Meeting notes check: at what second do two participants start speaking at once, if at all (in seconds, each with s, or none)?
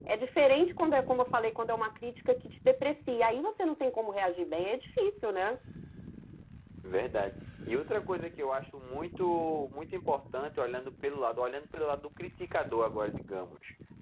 none